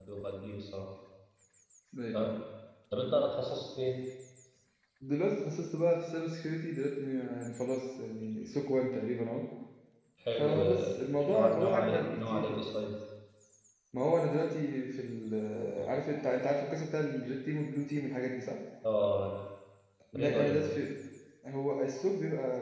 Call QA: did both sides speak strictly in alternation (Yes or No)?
No